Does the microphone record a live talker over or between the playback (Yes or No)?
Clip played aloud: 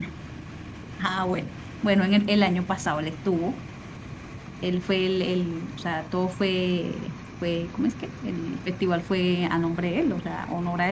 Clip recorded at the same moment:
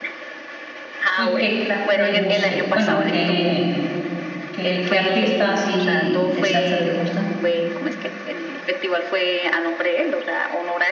Yes